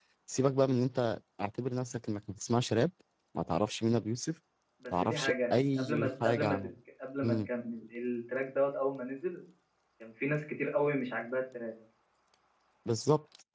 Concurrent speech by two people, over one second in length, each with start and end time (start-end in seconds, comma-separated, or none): 5.0-6.6